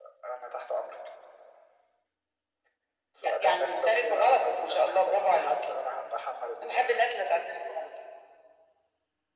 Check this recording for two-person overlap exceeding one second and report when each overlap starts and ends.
3.2-5.5

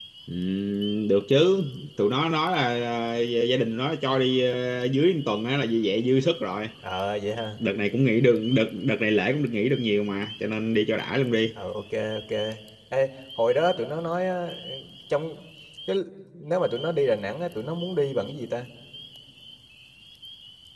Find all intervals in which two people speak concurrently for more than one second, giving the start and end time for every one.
none

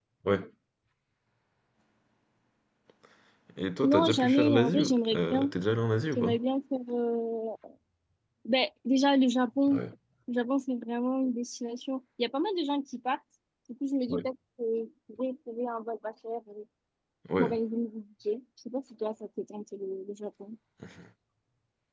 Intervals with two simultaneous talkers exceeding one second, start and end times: 3.8-5.5

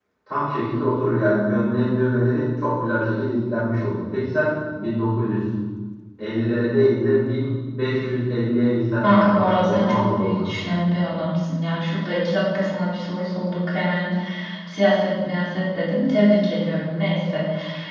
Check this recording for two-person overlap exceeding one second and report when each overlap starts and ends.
9.0-10.5

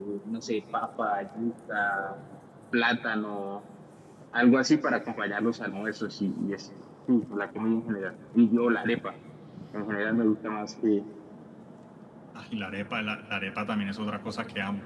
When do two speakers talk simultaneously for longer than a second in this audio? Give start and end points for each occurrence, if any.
none

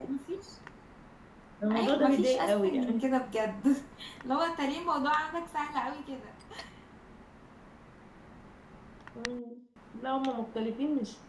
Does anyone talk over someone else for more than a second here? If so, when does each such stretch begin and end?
1.8-3.1

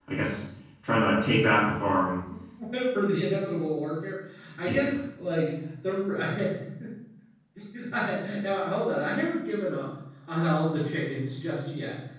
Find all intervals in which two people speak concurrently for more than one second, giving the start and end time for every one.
none

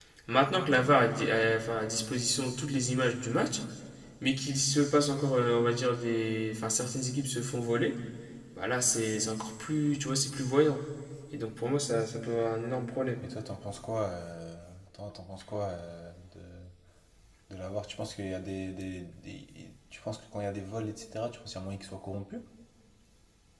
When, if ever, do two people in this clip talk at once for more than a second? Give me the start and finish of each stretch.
none

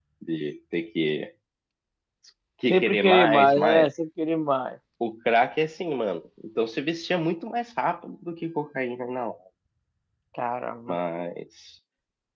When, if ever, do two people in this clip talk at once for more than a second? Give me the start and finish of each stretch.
2.7-3.9

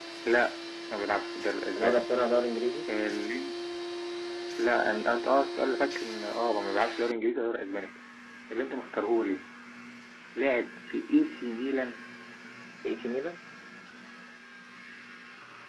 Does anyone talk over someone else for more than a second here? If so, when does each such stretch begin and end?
none

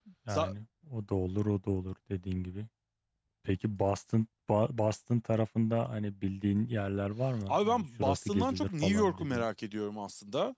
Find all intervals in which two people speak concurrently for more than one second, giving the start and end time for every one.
7.5-9.5

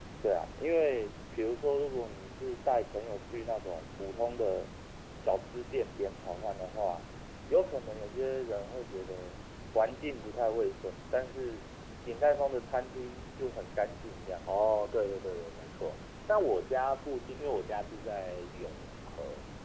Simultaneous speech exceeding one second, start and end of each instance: none

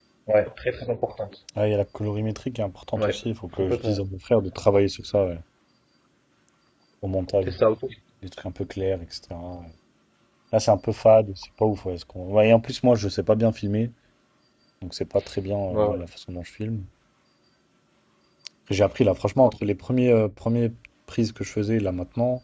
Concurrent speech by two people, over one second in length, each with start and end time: none

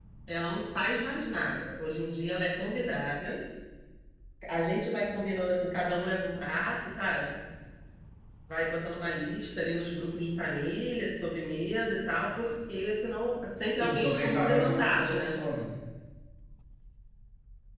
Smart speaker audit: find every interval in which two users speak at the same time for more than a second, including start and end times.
13.7-15.4

